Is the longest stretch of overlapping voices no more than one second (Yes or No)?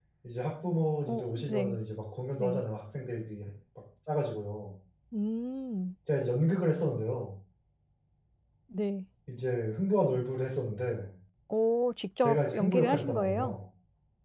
No